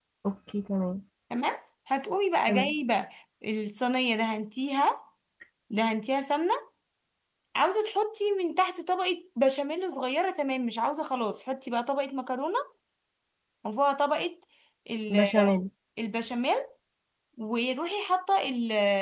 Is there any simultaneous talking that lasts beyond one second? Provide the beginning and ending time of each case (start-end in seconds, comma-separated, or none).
none